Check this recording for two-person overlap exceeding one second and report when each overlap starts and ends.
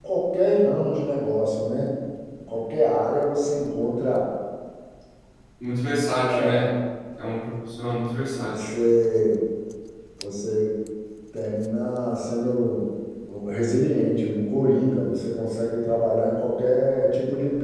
none

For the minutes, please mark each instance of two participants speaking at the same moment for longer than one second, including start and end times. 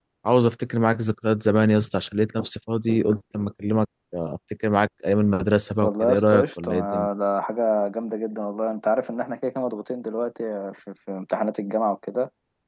5.8-7.1

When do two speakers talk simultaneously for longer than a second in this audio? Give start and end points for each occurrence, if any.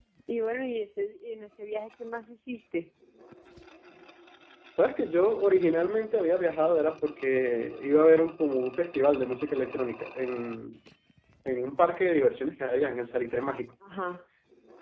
none

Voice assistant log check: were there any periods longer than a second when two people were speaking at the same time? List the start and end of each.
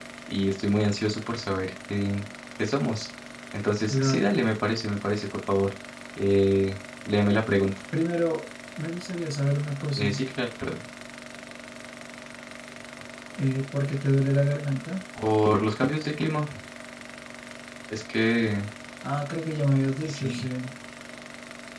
none

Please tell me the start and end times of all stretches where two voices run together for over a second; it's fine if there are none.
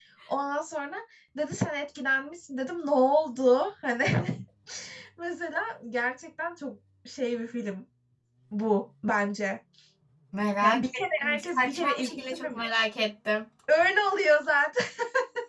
10.6-12.6

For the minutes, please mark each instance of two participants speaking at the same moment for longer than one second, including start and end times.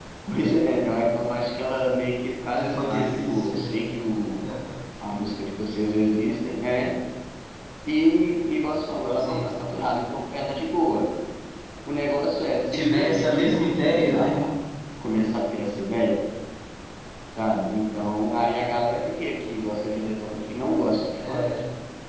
2.6-3.8, 12.7-14.4

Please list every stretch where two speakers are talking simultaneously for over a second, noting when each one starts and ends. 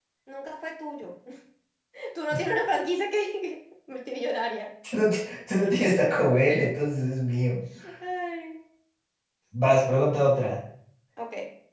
none

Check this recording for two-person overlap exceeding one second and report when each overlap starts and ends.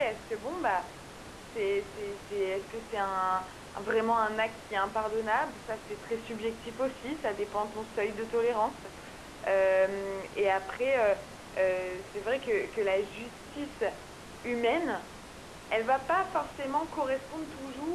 none

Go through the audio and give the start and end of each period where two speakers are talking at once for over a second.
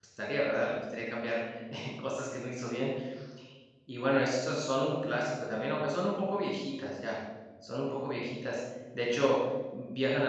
none

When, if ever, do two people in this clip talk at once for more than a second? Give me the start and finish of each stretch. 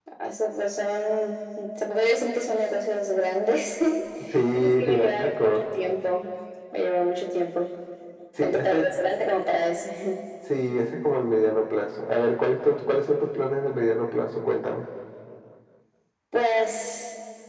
4.3-5.6

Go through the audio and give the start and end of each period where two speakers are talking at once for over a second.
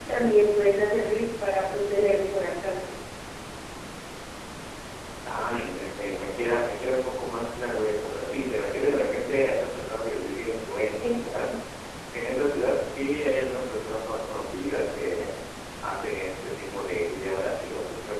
none

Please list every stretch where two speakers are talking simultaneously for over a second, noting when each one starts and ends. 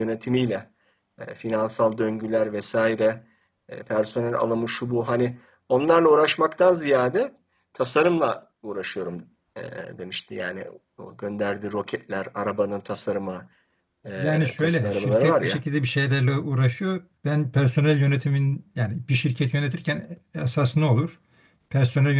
14.2-15.6

